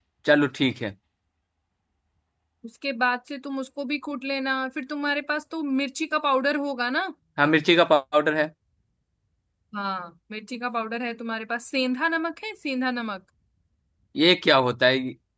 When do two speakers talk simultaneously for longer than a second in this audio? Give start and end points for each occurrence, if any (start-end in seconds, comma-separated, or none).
none